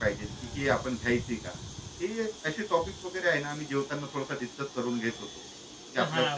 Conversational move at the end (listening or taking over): taking over